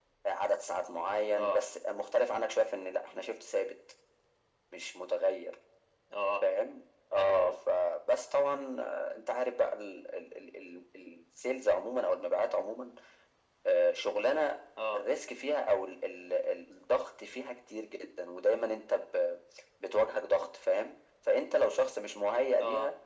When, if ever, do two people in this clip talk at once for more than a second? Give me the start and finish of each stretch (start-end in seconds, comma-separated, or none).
none